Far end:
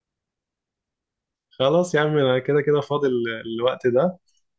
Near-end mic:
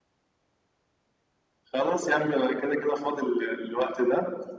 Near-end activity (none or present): none